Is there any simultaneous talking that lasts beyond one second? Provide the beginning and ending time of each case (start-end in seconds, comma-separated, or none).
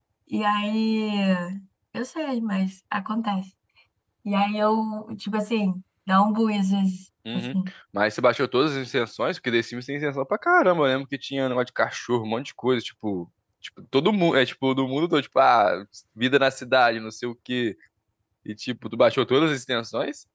none